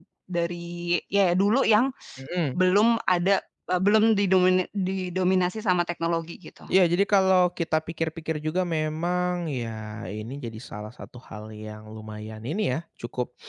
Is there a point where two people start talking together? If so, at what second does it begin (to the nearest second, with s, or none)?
none